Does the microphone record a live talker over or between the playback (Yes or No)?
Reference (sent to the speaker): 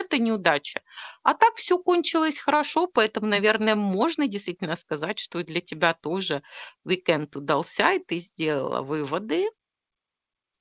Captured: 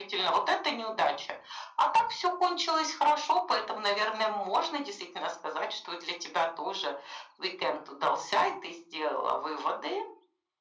No